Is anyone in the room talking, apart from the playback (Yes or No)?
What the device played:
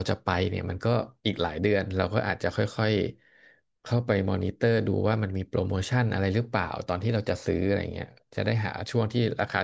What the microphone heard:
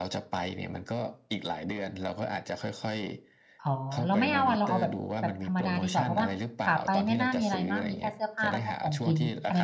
Yes